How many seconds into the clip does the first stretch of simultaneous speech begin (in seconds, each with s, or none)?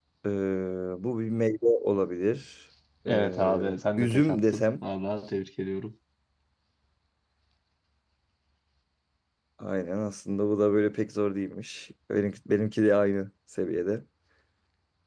3.1 s